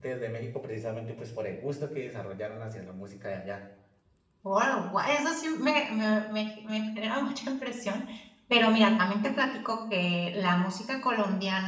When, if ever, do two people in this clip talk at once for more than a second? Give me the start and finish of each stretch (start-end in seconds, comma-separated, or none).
none